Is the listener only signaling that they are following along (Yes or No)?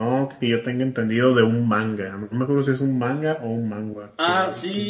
No